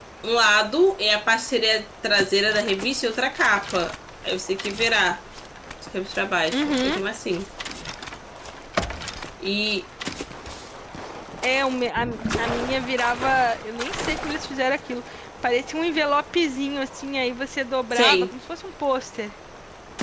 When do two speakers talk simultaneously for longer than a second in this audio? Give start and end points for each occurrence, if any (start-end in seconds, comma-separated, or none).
none